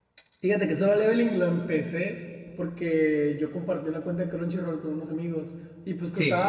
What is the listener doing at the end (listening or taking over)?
listening